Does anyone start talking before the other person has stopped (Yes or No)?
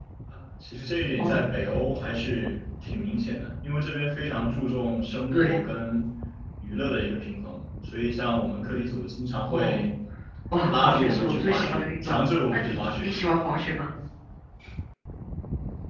Yes